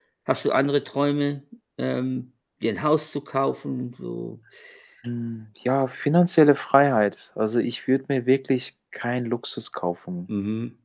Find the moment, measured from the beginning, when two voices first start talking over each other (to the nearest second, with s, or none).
none